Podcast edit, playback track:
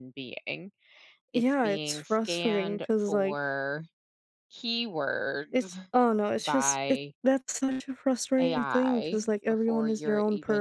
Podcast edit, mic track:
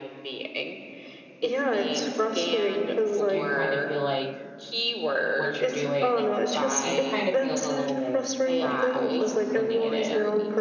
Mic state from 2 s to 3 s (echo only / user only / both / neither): echo only